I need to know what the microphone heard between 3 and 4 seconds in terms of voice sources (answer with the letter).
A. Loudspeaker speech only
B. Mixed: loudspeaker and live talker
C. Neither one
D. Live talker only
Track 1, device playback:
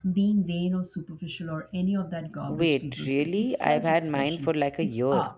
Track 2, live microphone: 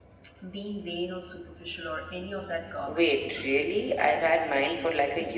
A